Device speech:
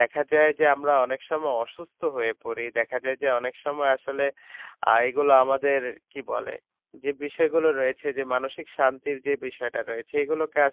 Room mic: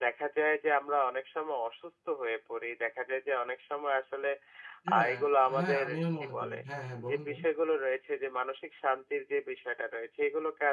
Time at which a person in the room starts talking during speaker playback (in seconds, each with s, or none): 4.9 s